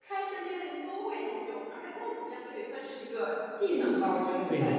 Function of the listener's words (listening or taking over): listening